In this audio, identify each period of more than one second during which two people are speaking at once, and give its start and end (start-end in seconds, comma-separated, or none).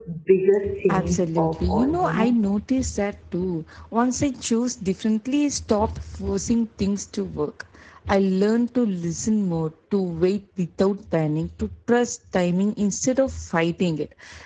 0.9-2.4